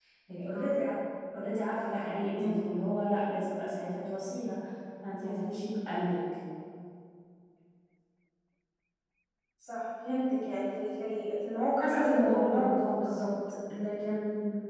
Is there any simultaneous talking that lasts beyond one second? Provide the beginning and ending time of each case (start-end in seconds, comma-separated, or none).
11.8-13.1